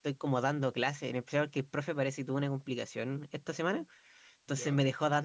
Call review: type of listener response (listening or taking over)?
listening